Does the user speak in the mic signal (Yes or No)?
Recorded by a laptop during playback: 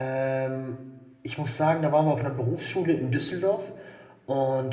Yes